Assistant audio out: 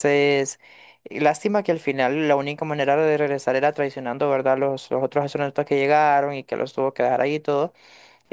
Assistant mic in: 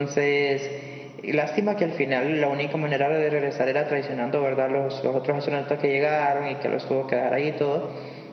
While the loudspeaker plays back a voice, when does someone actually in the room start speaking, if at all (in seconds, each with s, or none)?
none